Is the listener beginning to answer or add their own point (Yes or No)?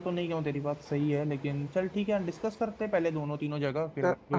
Yes